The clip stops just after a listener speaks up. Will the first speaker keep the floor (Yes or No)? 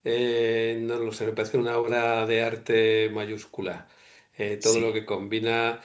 Yes